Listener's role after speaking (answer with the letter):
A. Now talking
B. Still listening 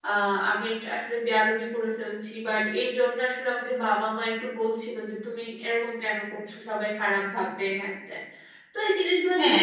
A